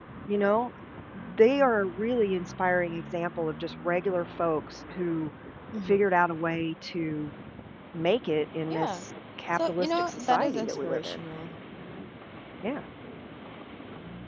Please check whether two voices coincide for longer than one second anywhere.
Yes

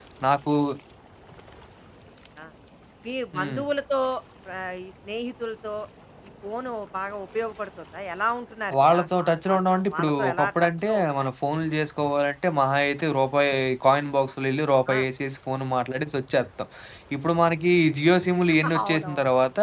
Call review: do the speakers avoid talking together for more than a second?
No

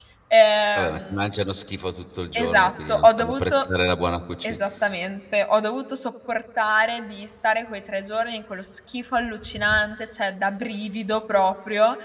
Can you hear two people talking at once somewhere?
Yes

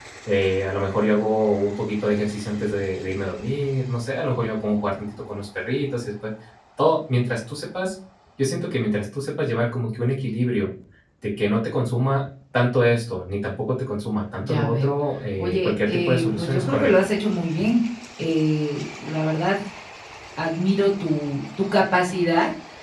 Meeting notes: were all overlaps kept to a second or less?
No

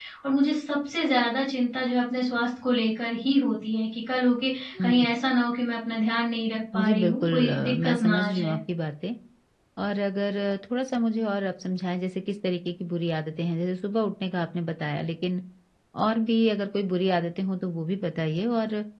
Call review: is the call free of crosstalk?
No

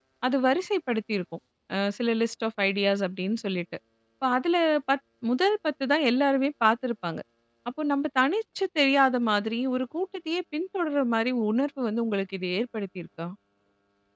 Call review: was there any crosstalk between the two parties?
No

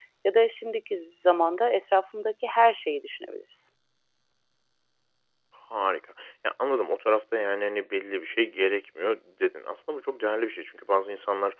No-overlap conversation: Yes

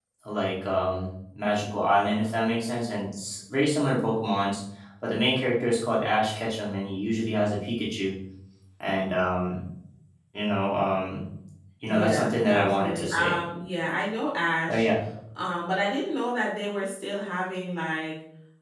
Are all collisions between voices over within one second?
No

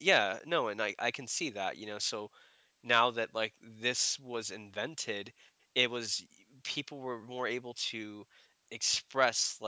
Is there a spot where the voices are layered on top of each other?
No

